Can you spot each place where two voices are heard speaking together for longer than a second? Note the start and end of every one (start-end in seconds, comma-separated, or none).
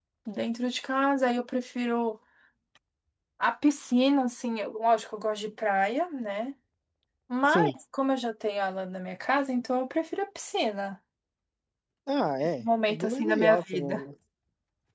12.4-14.0